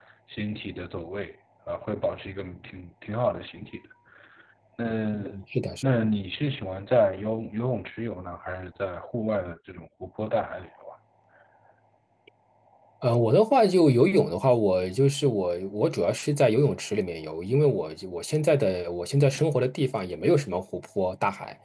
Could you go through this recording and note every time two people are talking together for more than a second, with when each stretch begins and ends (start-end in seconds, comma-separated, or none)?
none